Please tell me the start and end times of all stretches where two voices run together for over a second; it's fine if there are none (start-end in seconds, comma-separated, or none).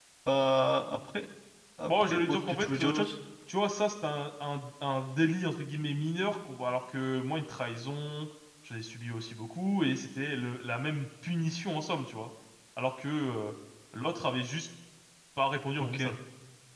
1.8-3.1